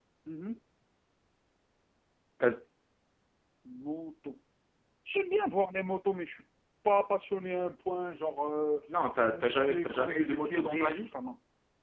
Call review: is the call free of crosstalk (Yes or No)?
No